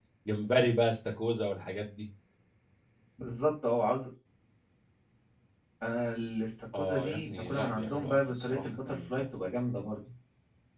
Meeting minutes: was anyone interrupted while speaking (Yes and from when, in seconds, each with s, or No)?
Yes, from 6.7 s